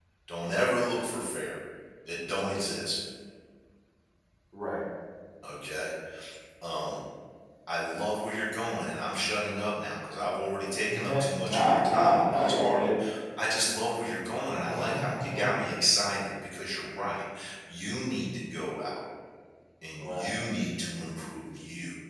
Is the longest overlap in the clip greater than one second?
Yes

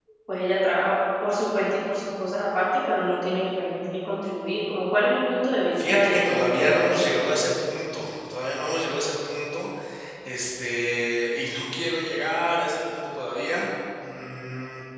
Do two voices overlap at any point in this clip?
Yes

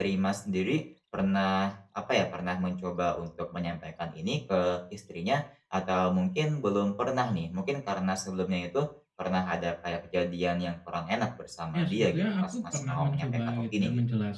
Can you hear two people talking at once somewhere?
Yes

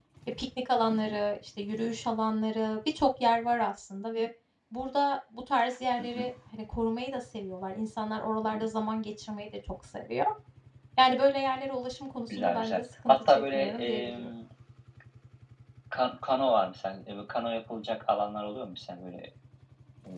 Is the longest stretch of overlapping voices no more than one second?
No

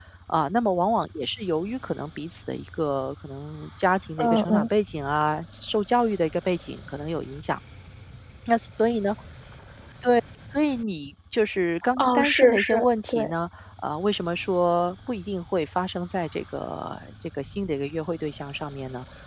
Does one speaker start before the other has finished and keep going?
Yes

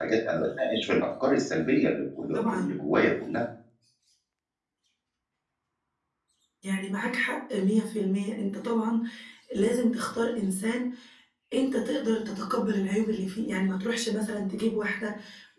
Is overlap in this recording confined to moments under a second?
Yes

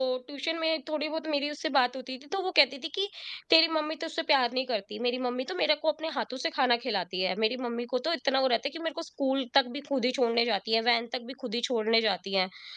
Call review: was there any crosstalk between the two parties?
No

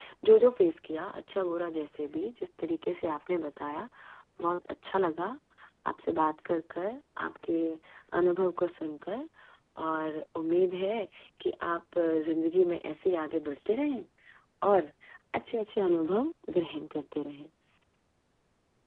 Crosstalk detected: No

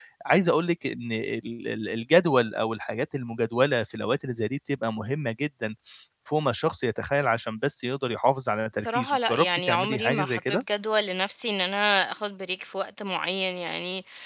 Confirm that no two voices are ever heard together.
No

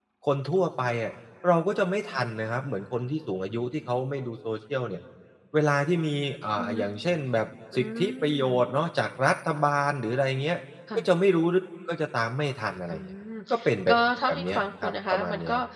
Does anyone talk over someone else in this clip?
Yes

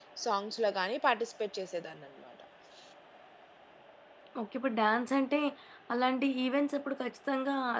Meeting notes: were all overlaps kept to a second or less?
Yes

